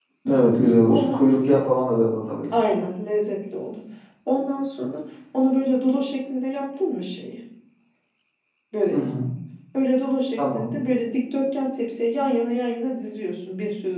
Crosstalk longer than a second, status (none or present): none